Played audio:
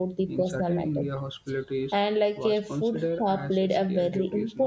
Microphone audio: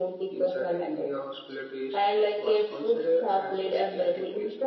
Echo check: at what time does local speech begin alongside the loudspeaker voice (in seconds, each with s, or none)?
none